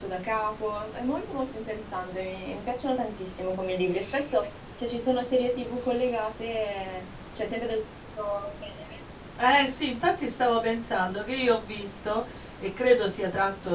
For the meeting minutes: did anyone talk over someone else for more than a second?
No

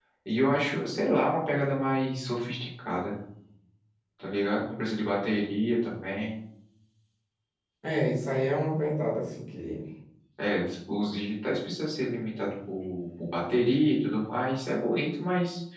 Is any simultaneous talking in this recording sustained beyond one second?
No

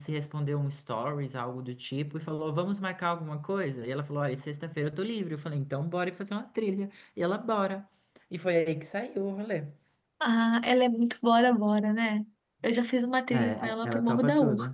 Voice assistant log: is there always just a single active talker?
No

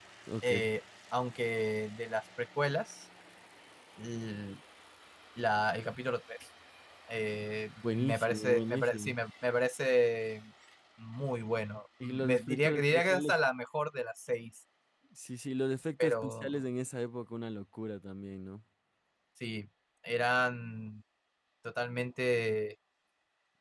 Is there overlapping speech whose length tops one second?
Yes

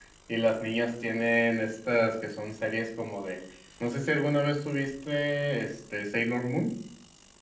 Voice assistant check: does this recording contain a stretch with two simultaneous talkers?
No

